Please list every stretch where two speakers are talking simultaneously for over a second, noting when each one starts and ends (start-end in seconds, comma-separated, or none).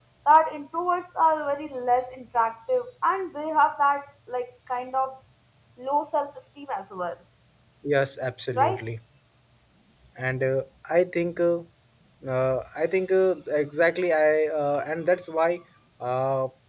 none